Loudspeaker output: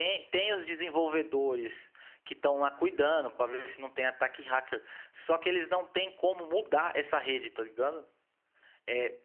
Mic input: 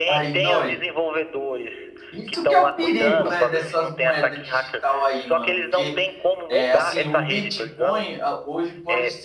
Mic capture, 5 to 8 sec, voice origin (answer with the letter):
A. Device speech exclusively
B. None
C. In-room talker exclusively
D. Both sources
D